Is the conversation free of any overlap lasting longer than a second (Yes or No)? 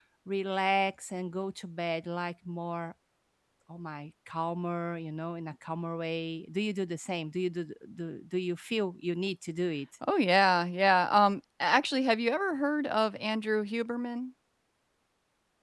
Yes